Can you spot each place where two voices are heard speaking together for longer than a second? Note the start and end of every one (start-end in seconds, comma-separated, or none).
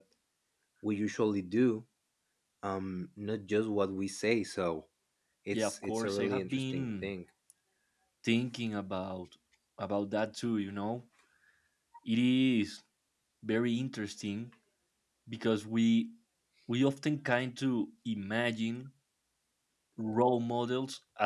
5.5-7.1